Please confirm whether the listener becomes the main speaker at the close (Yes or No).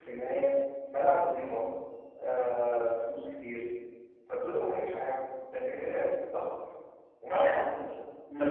Yes